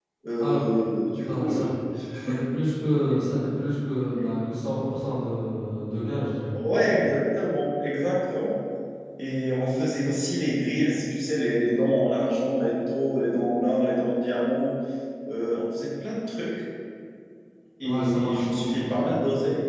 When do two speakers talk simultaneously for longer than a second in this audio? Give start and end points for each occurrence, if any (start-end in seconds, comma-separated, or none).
17.8-19.0